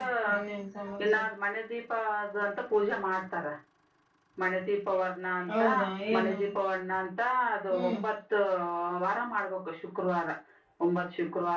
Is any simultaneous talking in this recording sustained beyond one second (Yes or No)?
No